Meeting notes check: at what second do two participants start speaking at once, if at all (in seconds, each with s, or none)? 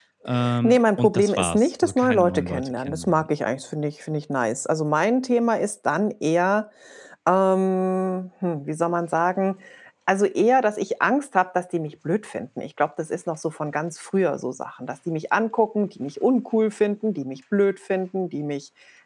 0.6 s